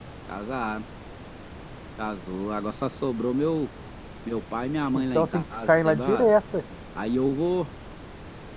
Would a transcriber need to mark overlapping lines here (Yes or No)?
Yes